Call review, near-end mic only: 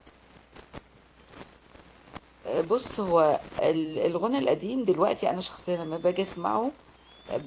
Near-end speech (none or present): present